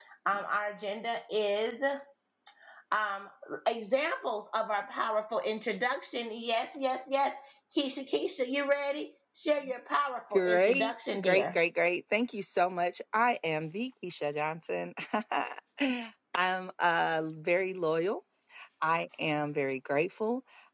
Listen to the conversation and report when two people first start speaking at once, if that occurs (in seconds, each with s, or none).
10.3 s